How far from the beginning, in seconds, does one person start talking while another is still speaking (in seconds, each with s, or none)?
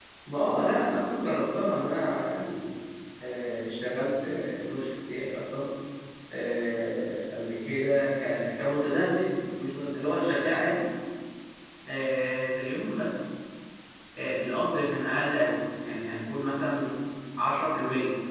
none